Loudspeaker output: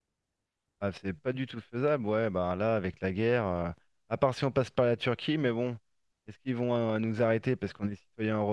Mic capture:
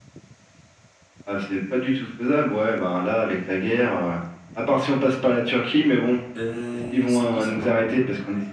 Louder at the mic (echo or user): echo